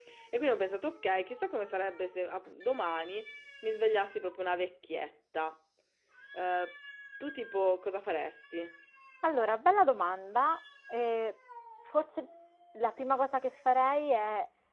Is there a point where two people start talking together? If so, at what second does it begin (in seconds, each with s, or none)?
none